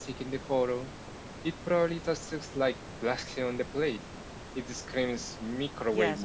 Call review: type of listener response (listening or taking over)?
taking over